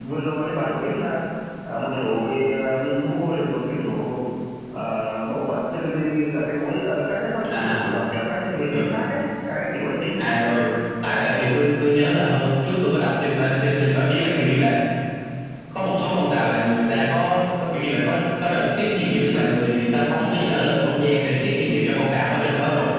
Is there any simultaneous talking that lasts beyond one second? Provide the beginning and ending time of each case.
none

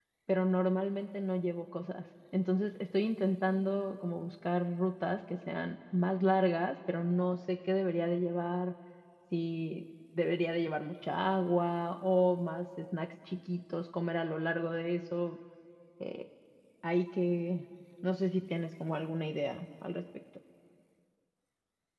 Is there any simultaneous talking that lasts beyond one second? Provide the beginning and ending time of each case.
none

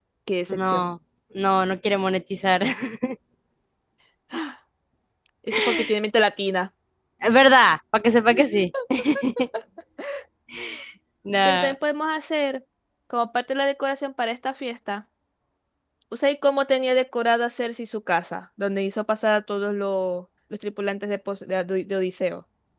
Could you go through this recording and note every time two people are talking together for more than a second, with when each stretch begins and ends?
none

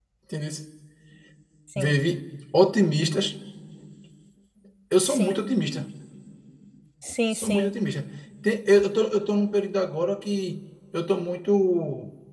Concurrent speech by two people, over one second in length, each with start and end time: none

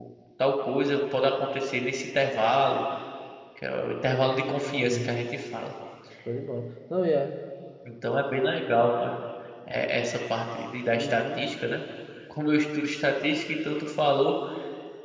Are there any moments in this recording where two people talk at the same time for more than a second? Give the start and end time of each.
none

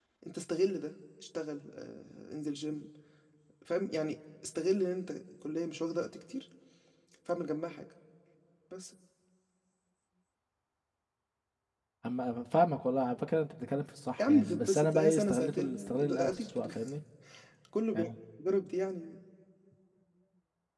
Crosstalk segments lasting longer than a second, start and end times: 14.2-16.7

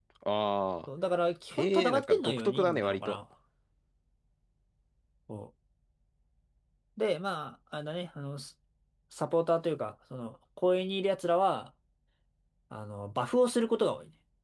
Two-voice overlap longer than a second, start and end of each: 1.5-3.2

